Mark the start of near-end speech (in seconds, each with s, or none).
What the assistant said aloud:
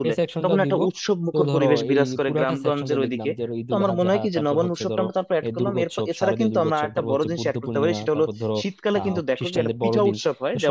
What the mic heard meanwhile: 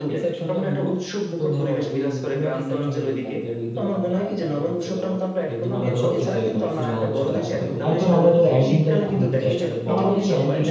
5.8 s